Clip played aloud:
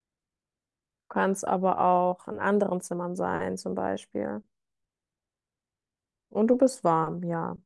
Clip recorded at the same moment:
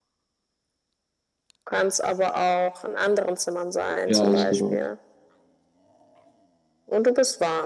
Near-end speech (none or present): present